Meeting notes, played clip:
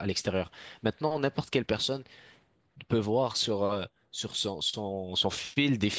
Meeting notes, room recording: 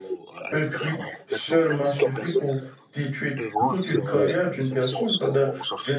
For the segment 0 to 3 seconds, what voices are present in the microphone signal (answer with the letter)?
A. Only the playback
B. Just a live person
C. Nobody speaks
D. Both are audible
D